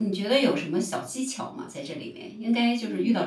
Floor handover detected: No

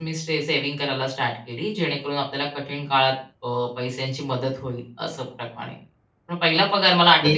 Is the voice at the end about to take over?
No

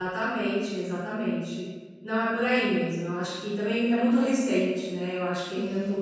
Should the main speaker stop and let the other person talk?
Yes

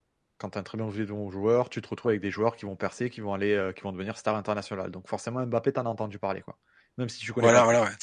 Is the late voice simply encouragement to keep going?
No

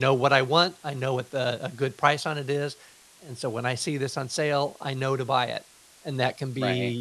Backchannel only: Yes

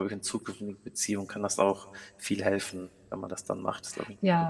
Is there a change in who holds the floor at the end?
Yes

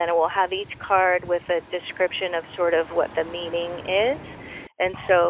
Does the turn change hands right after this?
No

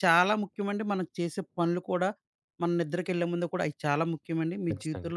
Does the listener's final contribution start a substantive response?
No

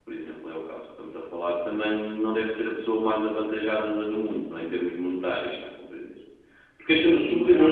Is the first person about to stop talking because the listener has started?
Yes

